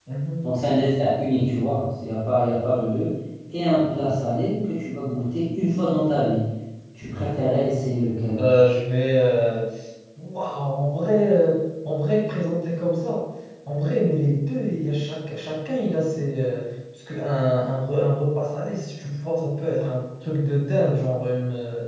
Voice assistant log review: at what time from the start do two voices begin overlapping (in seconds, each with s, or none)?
none